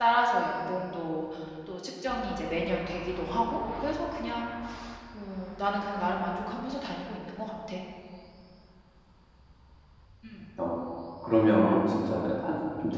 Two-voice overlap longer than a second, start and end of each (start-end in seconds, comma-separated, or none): none